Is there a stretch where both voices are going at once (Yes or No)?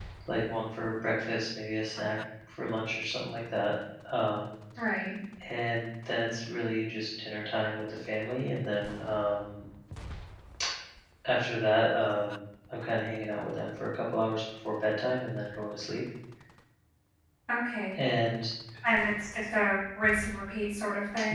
No